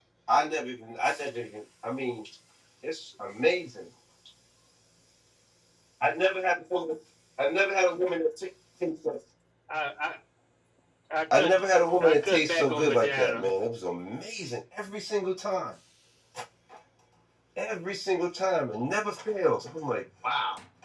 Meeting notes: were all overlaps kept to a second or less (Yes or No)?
No